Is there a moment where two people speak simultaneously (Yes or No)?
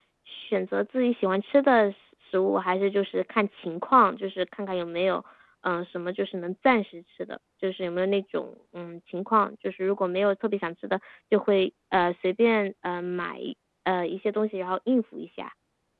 No